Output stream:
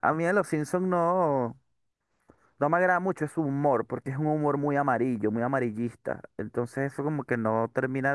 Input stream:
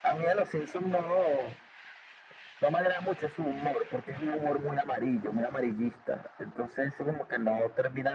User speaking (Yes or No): No